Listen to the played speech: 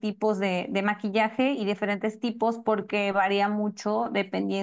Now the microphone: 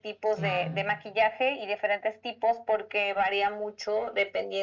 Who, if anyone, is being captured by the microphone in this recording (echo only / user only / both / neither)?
both